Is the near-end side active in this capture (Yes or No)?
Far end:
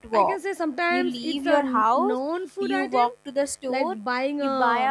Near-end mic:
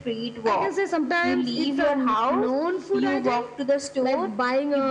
No